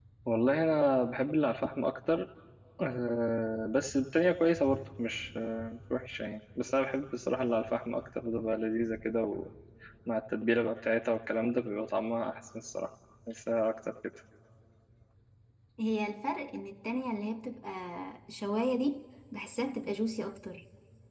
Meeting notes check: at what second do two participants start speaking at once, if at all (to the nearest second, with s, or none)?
none